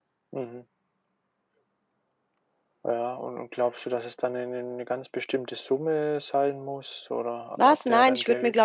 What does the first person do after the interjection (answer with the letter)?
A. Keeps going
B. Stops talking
B